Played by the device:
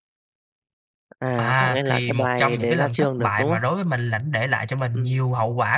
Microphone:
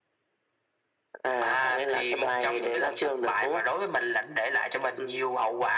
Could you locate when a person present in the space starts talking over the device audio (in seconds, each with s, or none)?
none